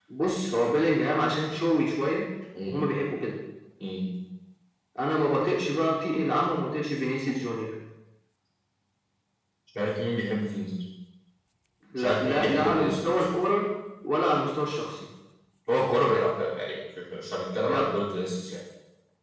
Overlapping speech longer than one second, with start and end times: 12.0-13.3

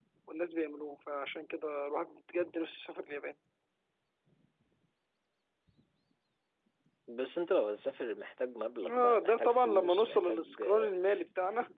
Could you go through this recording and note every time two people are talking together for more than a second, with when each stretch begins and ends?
8.9-10.9

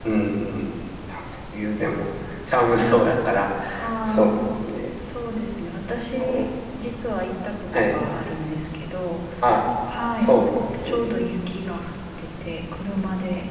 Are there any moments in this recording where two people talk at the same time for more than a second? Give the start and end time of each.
none

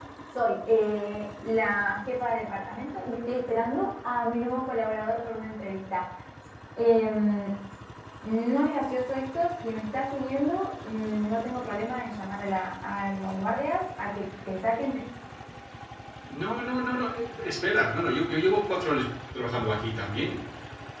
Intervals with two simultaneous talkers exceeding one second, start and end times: none

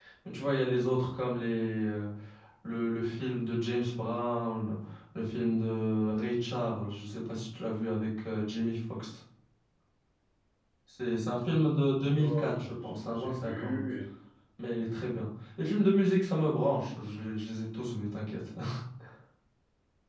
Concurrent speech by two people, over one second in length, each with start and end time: 12.2-13.9

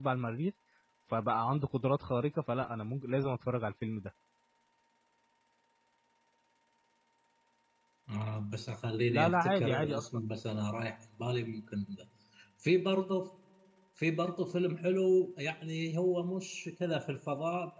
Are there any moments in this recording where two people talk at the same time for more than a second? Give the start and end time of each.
9.1-10.3

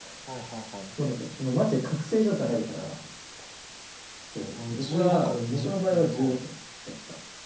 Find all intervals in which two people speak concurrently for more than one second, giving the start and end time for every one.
4.7-6.4

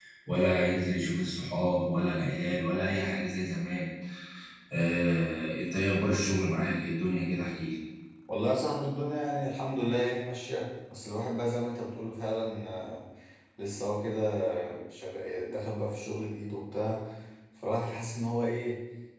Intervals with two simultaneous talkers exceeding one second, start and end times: none

